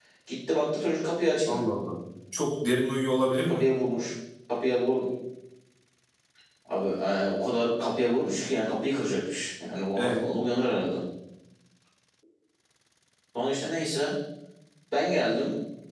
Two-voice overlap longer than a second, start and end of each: none

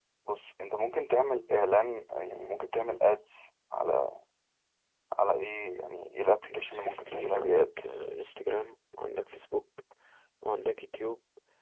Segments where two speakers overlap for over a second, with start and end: 6.4-7.7

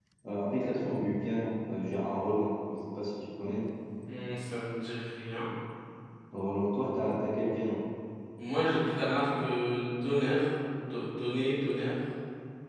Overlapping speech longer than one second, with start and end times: none

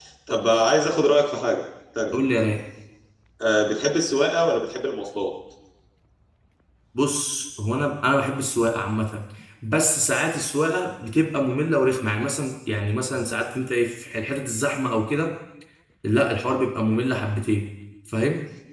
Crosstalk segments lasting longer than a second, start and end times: none

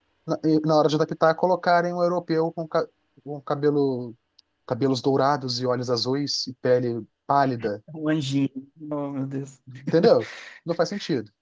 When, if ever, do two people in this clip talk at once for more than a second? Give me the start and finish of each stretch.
none

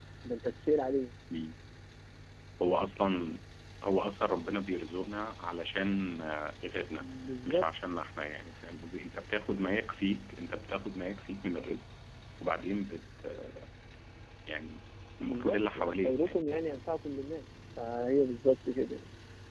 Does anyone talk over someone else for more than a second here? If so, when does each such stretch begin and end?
15.2-16.8

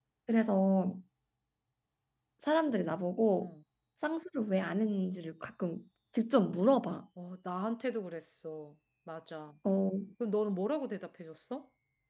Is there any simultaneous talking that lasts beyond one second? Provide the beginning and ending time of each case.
none

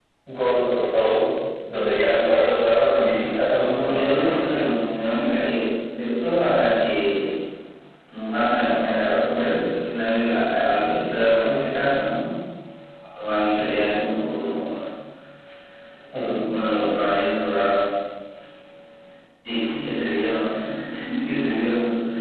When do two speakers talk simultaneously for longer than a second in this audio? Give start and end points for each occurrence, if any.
2.9-4.5

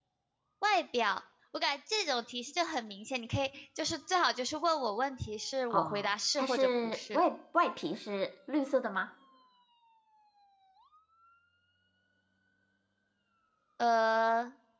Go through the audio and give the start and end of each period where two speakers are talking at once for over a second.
5.7-7.2

